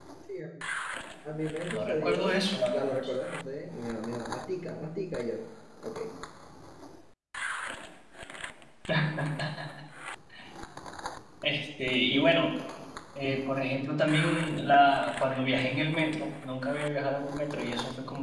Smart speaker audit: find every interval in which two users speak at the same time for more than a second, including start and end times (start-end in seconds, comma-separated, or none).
1.7-3.0